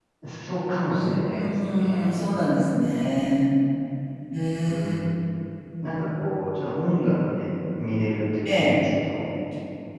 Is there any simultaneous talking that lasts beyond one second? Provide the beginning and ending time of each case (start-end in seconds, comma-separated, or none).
0.9-2.1